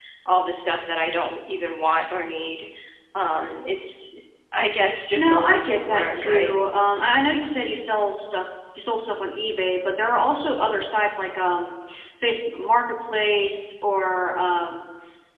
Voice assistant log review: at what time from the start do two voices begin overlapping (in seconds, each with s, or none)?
5.2 s